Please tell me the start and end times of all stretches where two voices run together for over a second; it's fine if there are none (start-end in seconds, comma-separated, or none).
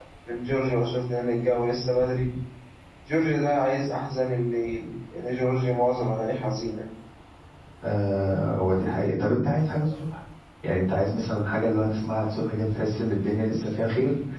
none